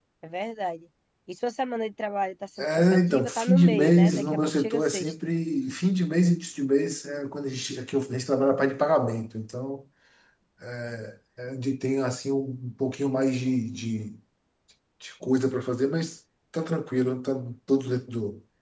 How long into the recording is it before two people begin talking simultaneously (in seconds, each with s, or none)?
2.6 s